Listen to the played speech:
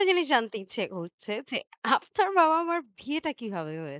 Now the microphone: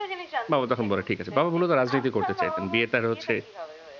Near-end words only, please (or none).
বাবা তখন বলে, "ঠিক আছে।" বাবা মুলত রাজনীতি করতে চাইতেন। বিয়ে তার হচ্ছে